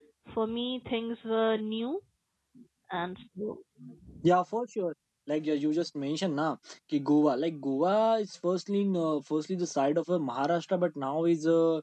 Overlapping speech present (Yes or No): No